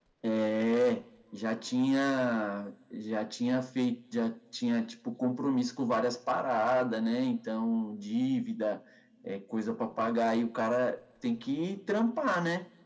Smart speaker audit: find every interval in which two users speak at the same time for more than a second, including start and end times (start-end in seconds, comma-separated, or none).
none